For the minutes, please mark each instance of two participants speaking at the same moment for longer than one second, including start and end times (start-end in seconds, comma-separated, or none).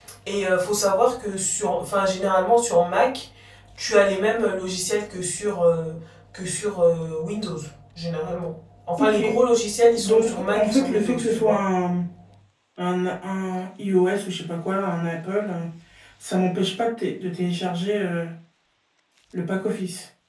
10.0-11.6